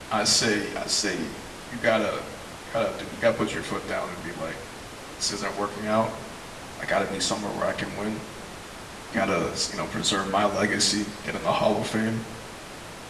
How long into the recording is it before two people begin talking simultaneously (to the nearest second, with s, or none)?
none